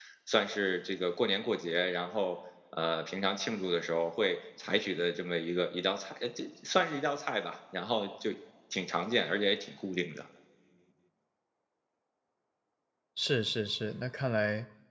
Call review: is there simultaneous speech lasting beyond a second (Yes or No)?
No